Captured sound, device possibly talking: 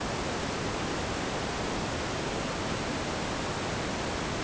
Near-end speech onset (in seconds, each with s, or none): none